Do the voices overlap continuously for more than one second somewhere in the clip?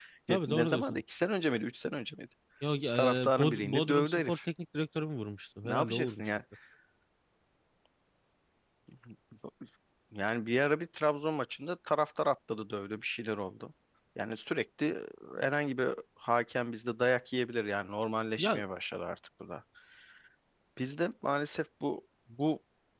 Yes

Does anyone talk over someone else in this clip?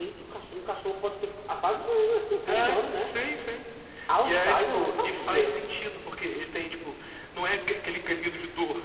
Yes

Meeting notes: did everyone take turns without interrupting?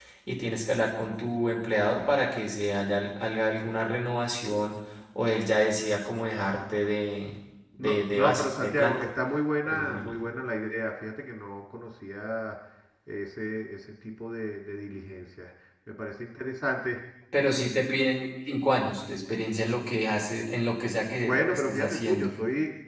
No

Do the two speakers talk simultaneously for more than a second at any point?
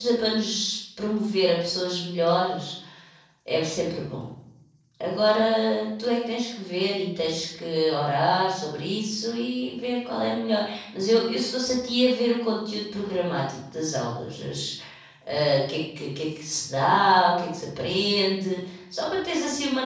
No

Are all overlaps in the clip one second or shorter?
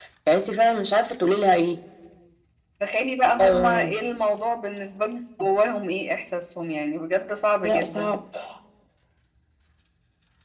Yes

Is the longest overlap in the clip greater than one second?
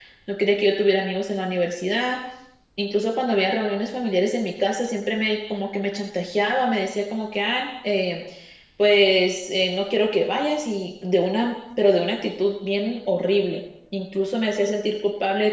No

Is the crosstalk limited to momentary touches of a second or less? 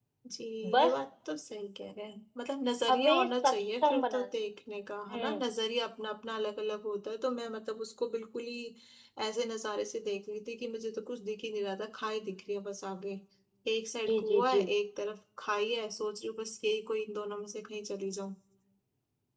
No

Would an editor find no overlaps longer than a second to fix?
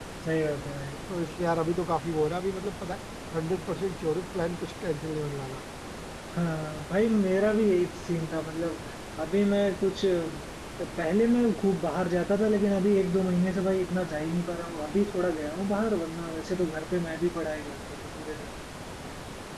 Yes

